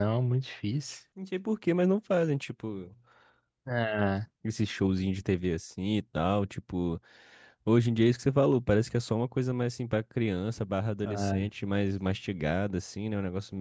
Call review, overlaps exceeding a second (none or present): none